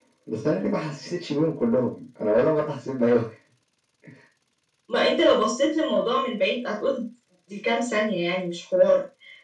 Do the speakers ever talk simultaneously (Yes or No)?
No